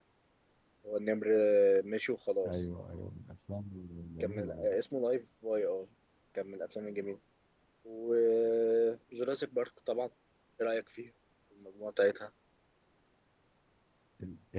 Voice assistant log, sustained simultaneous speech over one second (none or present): none